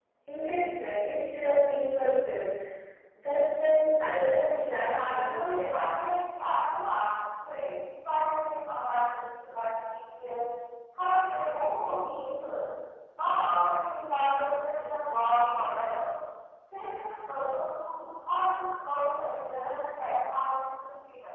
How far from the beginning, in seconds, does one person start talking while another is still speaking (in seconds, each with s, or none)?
4.2 s